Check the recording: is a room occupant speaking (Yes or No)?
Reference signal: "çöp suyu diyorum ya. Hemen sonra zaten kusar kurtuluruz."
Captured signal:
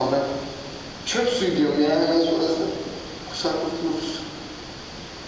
No